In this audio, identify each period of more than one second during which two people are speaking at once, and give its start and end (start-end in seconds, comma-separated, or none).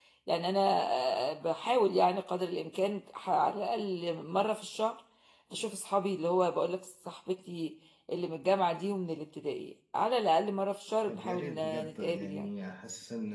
11.1-12.5